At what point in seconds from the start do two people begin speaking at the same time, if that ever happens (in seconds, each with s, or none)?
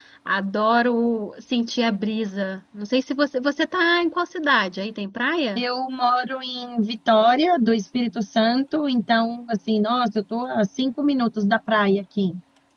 none